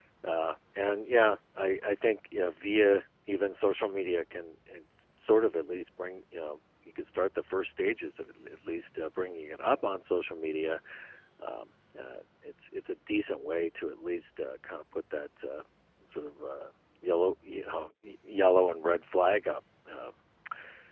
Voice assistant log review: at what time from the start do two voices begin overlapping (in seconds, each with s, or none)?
none